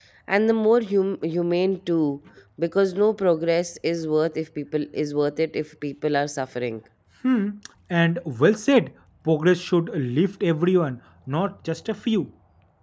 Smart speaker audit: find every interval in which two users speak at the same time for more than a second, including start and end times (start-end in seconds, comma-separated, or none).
none